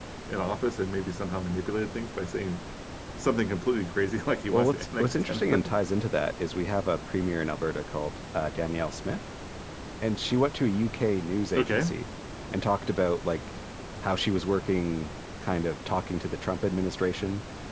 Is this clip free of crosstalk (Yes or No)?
No